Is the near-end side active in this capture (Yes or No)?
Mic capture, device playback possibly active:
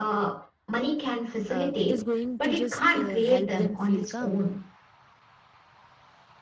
Yes